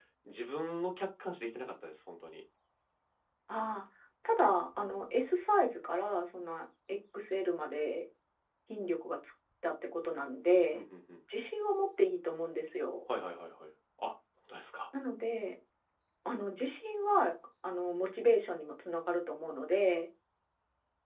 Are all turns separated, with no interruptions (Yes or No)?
Yes